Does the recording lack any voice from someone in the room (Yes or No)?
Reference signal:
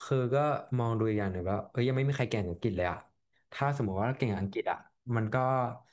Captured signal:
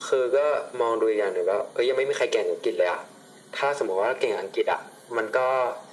Yes